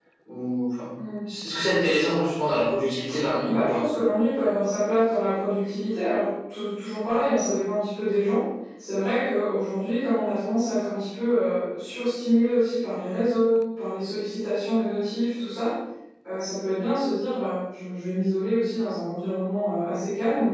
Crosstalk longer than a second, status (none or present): none